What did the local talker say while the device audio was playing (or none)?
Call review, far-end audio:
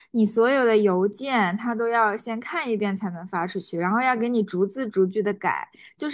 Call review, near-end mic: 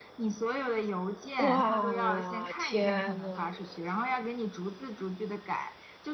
哇，天呐，